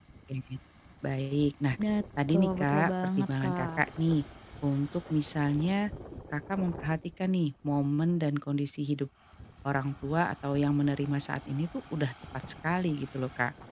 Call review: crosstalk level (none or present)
present